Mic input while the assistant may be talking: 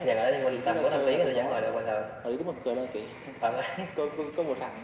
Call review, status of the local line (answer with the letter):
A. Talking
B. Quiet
B